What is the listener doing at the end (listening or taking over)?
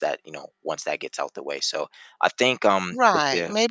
taking over